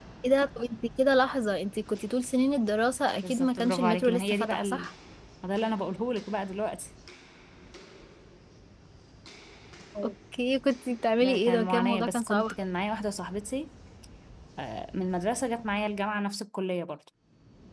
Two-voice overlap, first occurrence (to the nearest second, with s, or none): 3 s